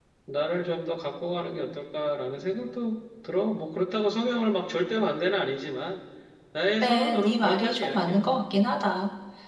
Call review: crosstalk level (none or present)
present